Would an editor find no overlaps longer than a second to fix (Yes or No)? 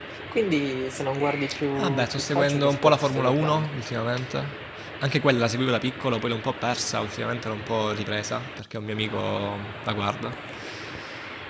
No